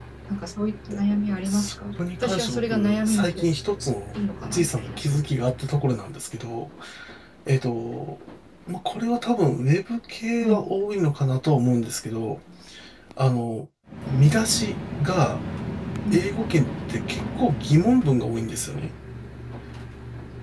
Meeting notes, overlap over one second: present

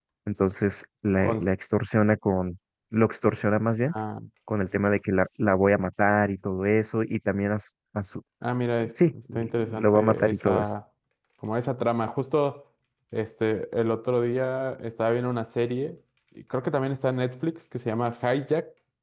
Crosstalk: present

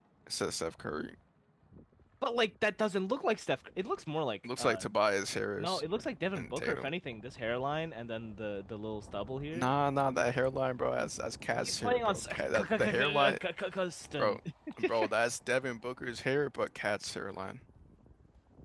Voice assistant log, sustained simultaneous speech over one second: present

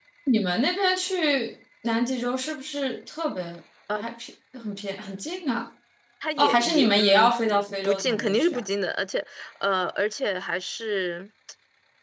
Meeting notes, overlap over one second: present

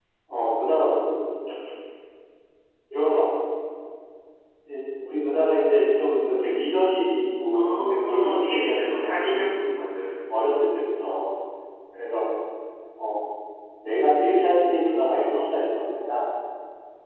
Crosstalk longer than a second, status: present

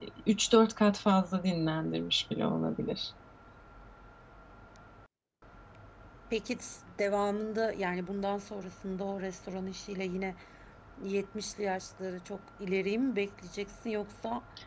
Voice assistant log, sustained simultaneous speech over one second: none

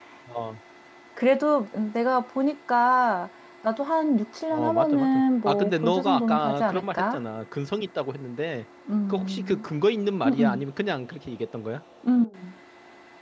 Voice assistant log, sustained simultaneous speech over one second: present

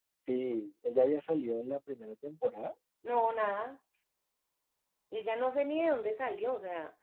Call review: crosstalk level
none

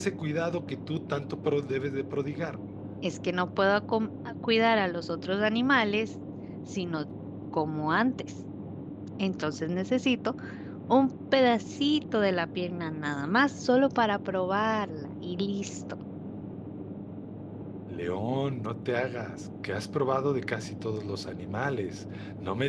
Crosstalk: none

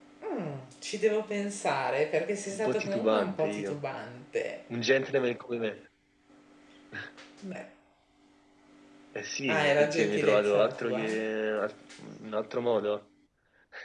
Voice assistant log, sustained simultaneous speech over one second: present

